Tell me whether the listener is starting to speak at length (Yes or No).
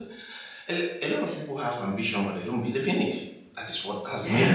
Yes